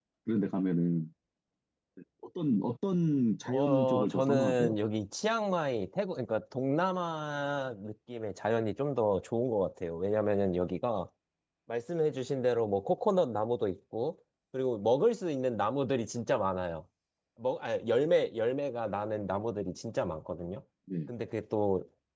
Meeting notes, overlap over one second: present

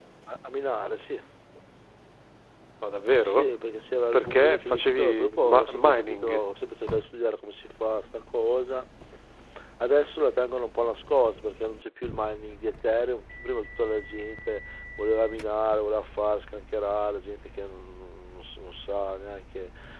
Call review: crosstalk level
present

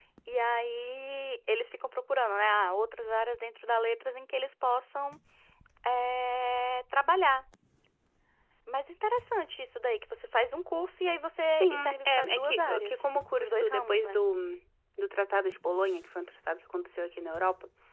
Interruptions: present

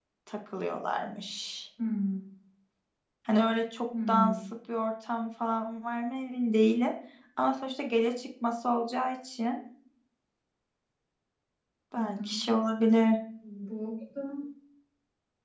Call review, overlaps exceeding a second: none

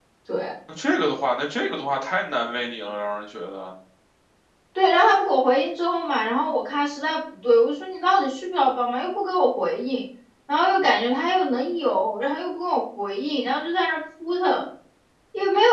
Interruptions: none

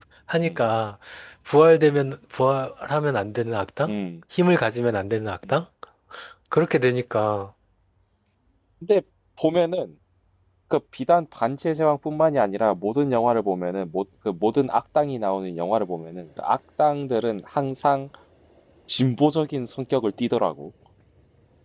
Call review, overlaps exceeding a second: none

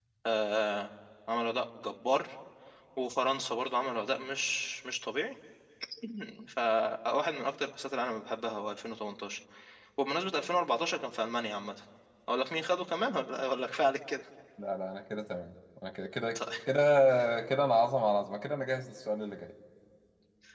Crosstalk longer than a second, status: none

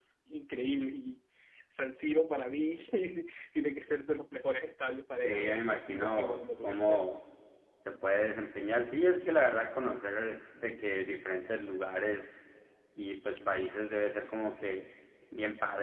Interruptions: present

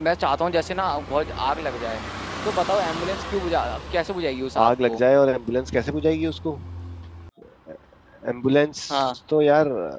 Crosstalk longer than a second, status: none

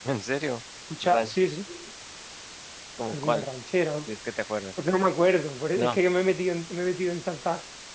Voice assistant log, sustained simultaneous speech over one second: none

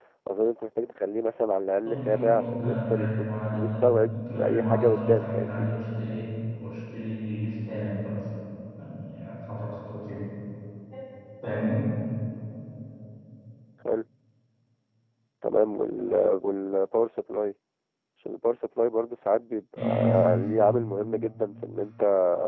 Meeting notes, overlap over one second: present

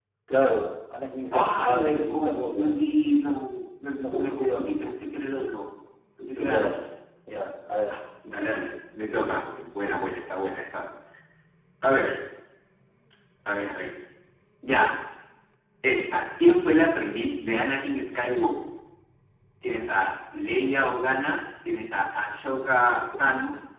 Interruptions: present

